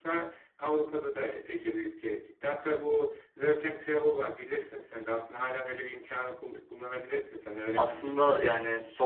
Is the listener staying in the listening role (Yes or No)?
No